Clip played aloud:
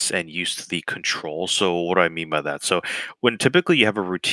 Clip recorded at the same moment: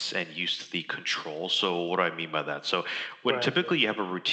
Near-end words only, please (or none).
Right.